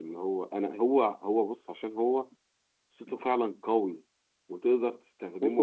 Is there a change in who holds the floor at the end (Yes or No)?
No